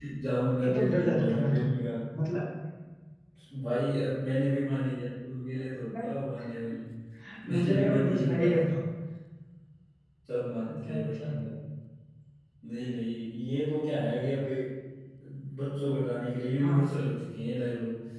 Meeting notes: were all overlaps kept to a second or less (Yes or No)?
No